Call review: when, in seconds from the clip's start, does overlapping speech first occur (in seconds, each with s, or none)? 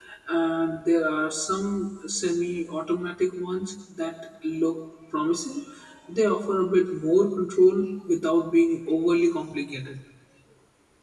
none